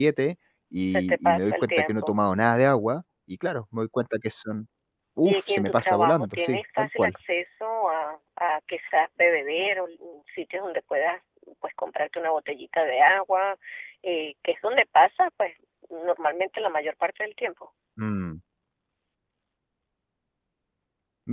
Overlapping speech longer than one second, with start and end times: 0.8-2.2, 5.2-7.1

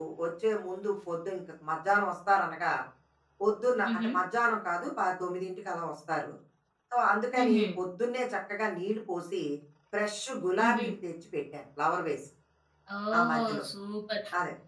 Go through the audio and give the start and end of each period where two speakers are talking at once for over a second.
none

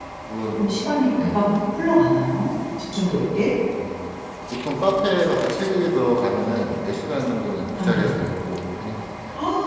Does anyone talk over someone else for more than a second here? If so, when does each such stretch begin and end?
none

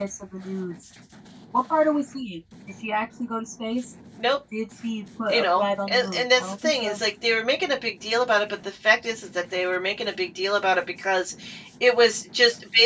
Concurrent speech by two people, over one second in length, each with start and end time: 5.3-7.0

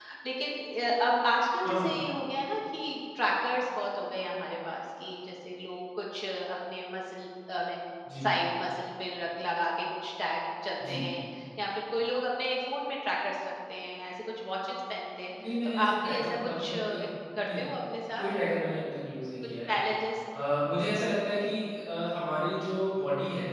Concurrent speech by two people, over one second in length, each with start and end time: 15.6-17.0

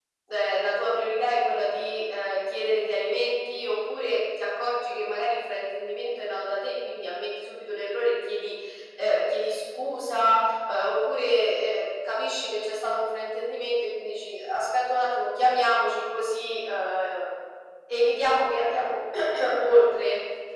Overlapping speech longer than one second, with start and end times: none

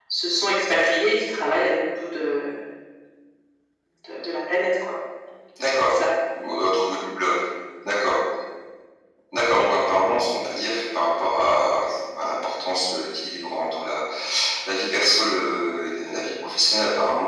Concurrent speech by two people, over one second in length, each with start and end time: none

